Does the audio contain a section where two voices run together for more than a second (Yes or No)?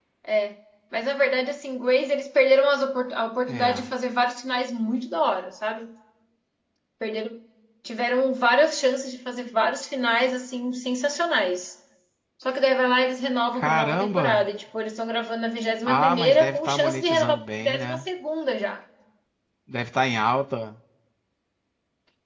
Yes